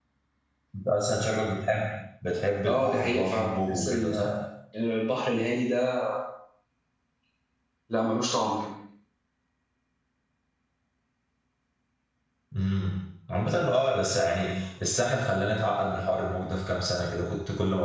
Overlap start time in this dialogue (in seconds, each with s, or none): 2.7 s